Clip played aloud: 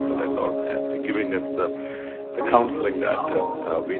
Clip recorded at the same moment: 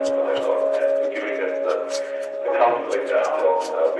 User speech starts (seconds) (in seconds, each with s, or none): none